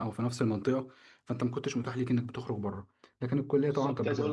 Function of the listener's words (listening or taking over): taking over